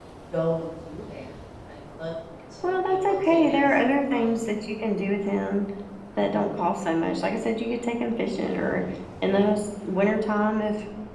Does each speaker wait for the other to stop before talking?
No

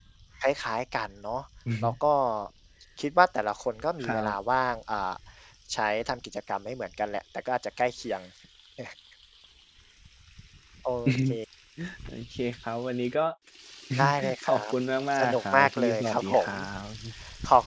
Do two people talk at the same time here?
Yes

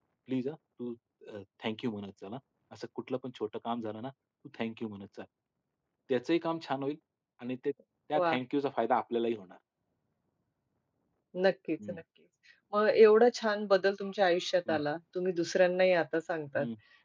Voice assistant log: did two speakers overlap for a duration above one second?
No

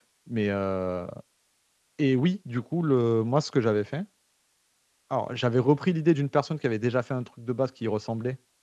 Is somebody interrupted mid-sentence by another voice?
No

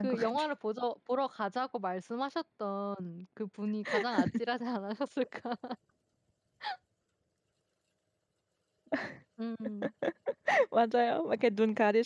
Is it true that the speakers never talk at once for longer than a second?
Yes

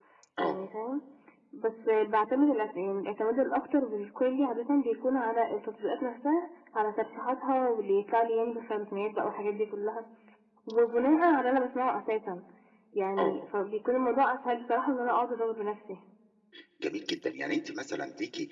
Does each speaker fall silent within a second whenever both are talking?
Yes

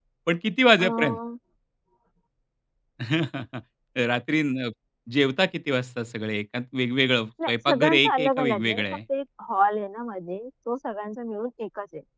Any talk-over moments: Yes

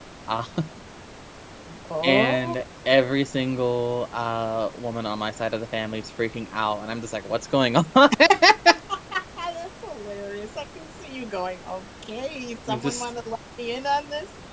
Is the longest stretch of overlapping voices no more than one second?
Yes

